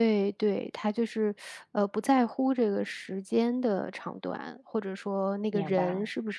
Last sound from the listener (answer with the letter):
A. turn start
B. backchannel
B